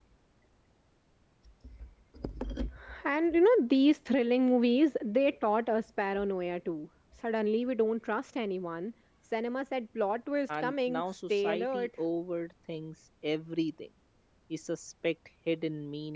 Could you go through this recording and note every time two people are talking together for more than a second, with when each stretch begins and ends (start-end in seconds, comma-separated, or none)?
10.5-11.9